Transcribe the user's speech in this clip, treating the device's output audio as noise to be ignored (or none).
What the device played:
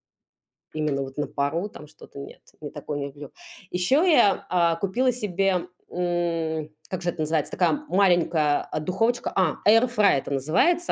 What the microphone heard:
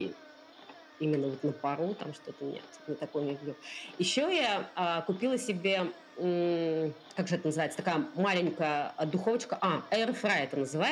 none